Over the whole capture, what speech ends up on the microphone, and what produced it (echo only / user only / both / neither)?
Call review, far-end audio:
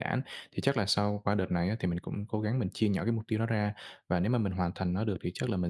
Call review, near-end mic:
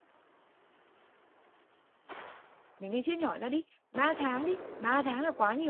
user only